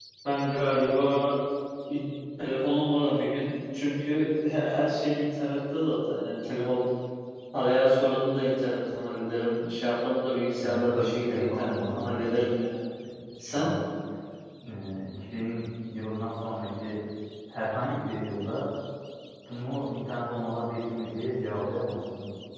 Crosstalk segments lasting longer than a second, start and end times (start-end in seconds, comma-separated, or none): 10.6-12.5